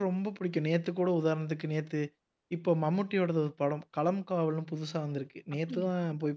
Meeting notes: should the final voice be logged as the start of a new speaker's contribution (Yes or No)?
No